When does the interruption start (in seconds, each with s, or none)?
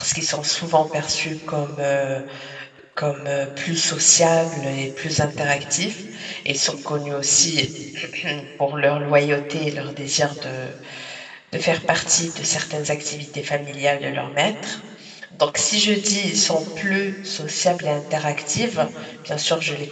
none